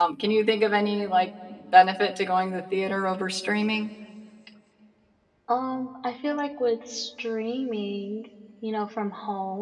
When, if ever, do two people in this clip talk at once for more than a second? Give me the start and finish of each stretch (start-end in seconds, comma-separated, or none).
none